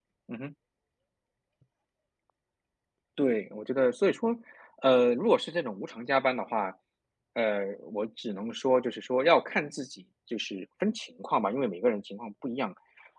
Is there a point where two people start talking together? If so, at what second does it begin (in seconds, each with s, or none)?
none